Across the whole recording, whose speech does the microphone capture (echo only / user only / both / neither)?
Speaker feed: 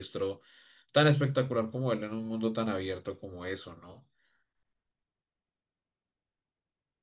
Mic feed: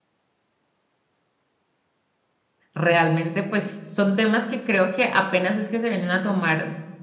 user only